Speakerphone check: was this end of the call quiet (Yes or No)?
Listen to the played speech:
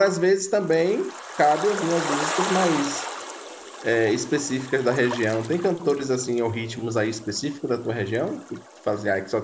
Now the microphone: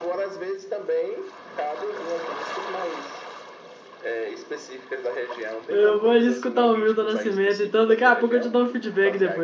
No